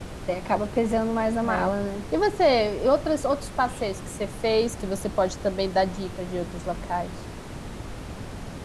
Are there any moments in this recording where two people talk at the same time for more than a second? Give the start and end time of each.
none

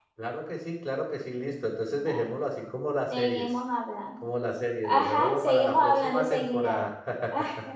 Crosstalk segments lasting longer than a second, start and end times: 4.8-6.8

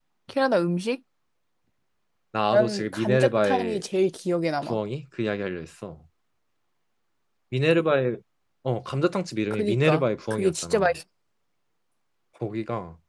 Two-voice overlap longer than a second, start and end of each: 2.5-3.8, 9.5-11.0

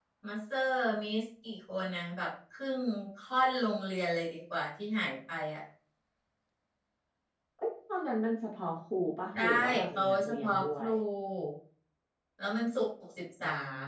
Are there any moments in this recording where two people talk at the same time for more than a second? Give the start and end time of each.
9.3-10.9

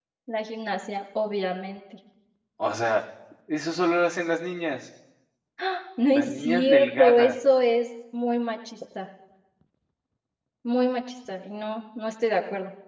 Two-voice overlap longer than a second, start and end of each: 6.1-7.3

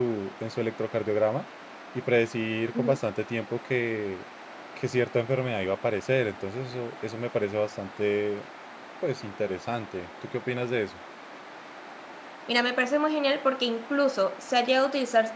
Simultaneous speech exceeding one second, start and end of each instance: none

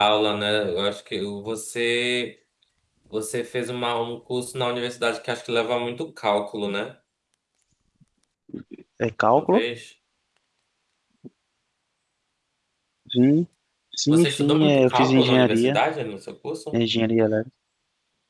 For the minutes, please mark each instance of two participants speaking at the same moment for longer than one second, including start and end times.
14.1-15.8

